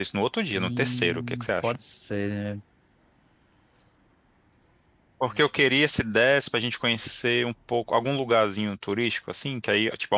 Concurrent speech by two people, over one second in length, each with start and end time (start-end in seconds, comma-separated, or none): 0.5-1.8